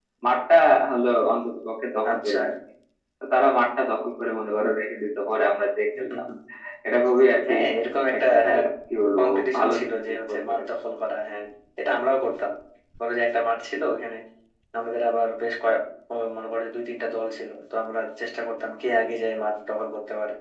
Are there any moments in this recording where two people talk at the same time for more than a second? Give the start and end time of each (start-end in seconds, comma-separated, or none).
9.2-10.7